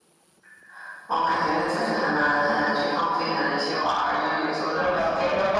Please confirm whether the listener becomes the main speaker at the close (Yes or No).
Yes